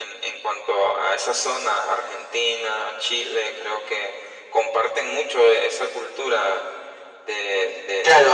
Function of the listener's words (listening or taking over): taking over